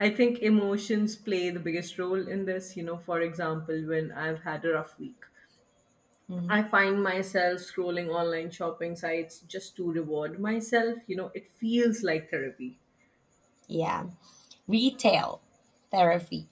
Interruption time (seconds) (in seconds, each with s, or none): none